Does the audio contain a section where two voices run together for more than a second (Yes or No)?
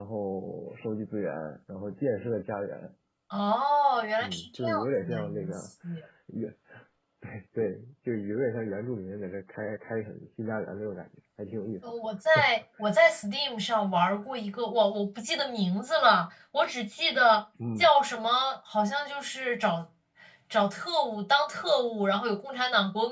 Yes